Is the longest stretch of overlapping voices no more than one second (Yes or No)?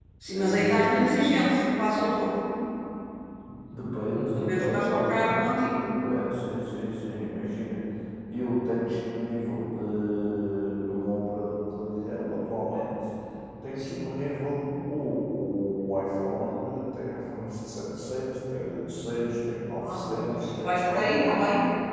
No